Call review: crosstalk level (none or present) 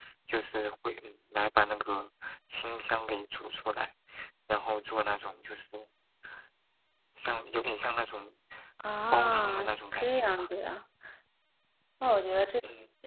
present